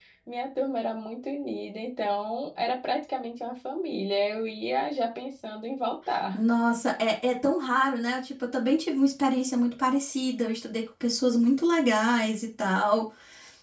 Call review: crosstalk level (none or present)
none